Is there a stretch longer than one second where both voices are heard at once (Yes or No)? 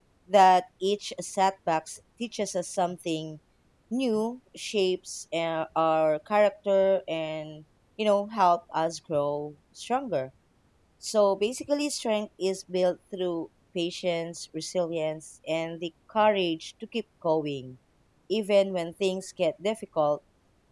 No